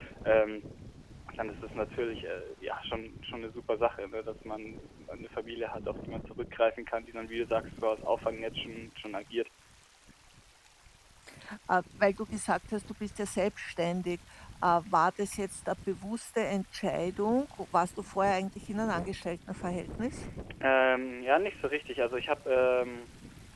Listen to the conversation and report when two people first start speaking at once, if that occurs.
none

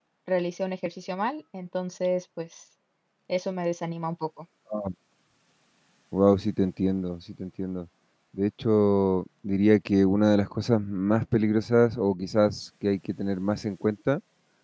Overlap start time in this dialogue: none

